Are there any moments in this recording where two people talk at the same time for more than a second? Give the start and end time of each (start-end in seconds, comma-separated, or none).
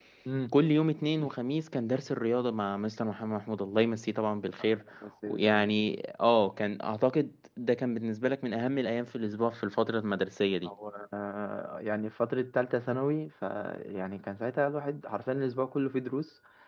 none